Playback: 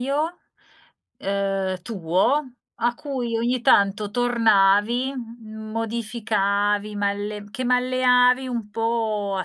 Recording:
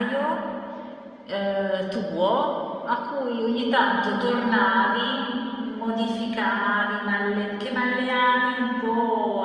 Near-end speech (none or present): none